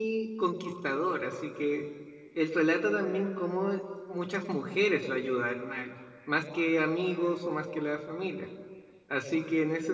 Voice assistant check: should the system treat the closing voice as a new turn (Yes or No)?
No